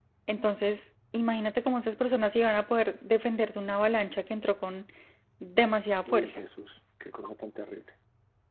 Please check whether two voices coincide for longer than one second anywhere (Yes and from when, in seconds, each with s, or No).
No